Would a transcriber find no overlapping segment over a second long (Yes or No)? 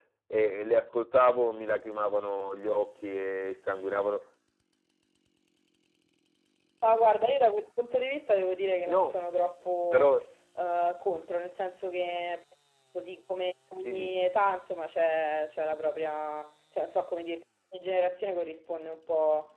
Yes